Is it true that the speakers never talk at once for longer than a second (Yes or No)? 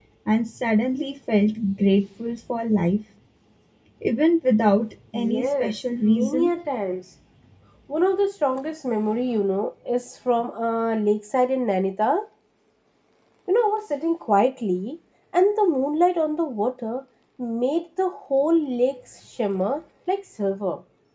No